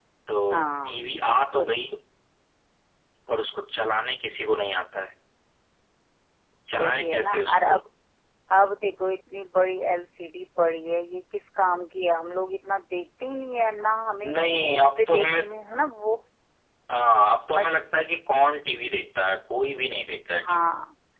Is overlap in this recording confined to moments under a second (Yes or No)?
No